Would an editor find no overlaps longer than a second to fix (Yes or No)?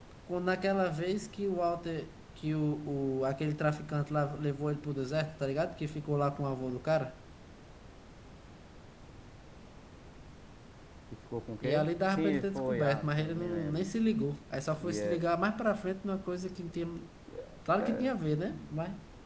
No